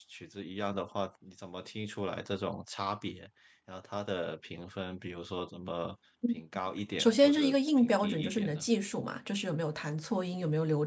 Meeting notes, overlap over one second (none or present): present